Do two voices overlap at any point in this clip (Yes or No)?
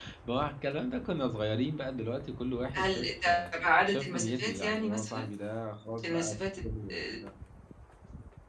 Yes